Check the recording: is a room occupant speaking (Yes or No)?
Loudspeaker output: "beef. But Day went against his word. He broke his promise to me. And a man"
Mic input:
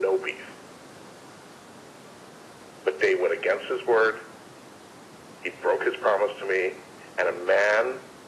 No